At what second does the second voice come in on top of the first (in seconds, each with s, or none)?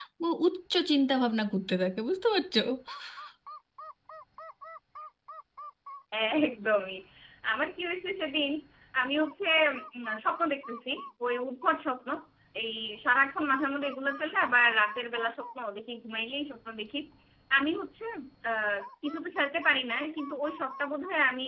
none